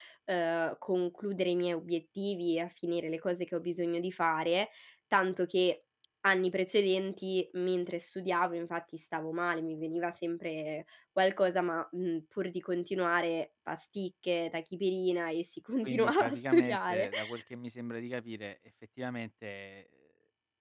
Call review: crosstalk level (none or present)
present